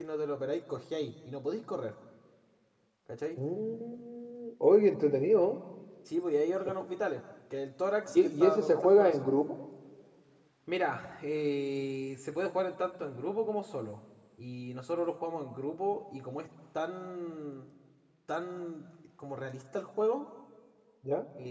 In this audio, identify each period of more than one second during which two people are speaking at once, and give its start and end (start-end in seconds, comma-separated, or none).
8.1-9.3